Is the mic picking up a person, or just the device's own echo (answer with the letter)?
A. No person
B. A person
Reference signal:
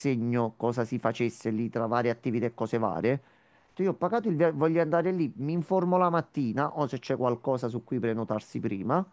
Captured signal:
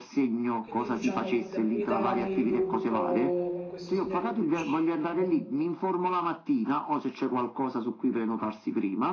B